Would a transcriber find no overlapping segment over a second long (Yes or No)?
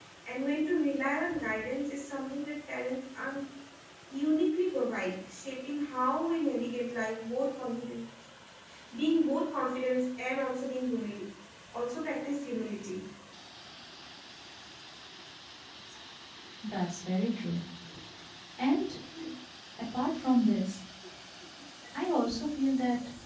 Yes